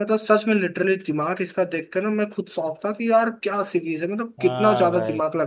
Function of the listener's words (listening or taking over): taking over